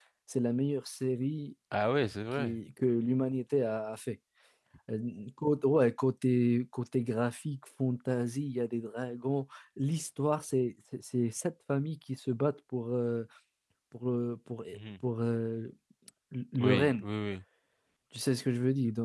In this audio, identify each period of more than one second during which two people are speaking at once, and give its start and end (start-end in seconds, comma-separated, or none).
none